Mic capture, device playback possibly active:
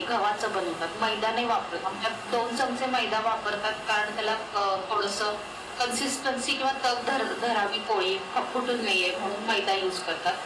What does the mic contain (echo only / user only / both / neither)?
echo only